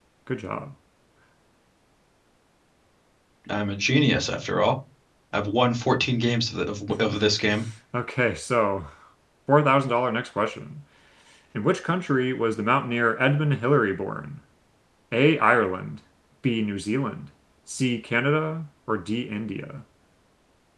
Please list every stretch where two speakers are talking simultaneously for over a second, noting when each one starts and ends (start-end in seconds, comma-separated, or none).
none